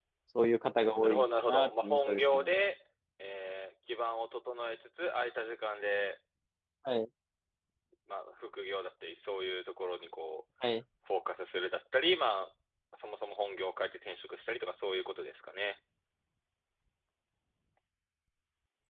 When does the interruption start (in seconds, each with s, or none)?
1.0 s